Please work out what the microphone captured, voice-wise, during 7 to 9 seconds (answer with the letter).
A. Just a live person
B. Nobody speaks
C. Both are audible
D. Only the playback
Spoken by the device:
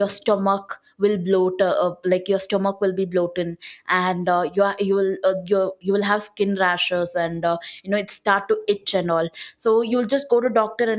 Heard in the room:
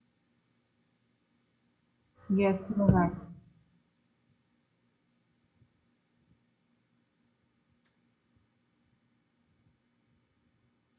B